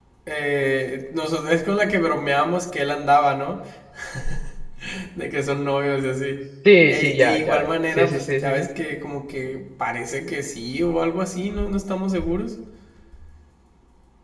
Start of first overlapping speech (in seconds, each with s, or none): 6.9 s